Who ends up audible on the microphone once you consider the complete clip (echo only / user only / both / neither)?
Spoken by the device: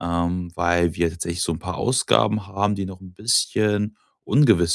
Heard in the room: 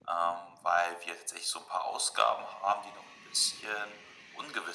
echo only